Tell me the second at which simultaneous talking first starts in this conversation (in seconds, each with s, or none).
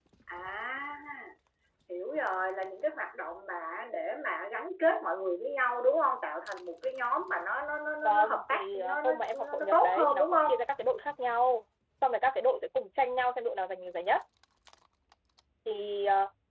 8.0 s